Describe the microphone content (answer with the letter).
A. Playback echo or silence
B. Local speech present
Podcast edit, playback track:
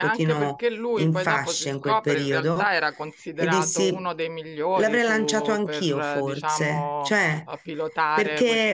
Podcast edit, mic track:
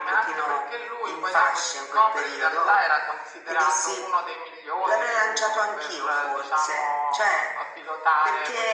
A